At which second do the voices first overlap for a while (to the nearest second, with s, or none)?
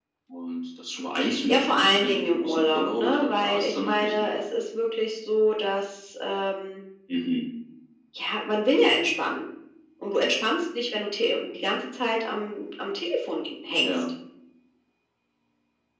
1 s